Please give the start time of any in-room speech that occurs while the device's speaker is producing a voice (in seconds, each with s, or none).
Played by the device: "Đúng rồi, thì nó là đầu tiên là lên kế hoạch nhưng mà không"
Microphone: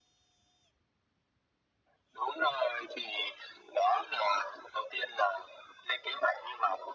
none